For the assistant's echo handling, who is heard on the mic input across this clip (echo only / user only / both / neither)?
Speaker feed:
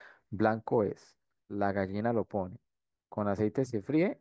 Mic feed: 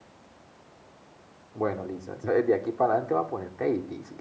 user only